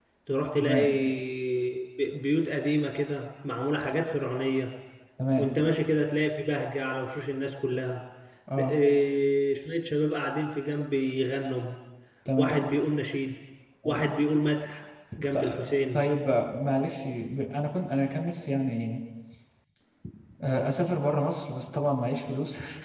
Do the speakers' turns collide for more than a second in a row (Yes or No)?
No